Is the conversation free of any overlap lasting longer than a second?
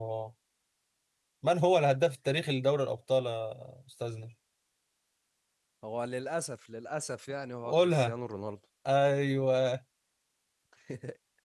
Yes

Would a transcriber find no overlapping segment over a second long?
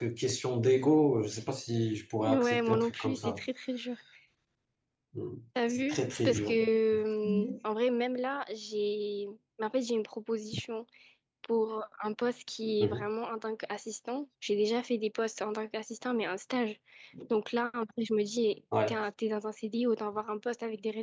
No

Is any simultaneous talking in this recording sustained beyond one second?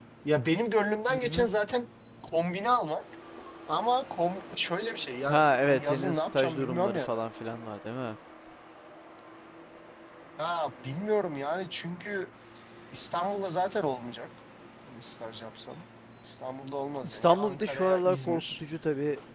Yes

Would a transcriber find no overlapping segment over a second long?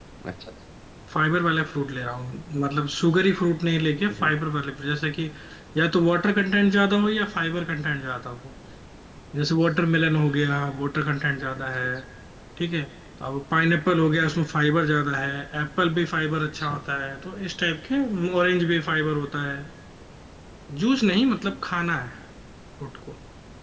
Yes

